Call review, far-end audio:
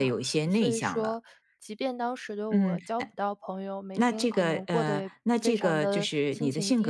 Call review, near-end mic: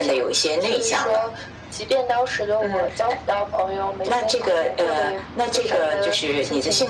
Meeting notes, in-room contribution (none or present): none